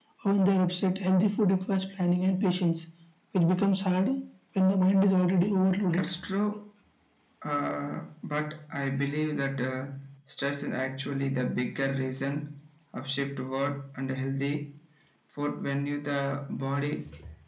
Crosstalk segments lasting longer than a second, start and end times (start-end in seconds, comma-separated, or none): none